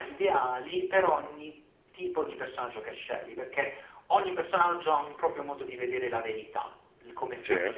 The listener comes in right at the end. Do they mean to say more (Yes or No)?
No